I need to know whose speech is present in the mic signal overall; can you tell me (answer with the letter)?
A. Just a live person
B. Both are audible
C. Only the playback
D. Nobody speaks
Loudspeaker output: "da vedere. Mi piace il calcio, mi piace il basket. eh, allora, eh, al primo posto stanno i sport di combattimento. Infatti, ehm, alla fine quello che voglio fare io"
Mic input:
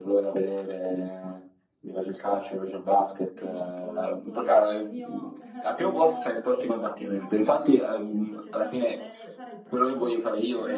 B